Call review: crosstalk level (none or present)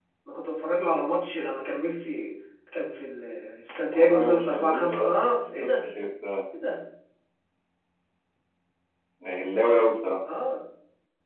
present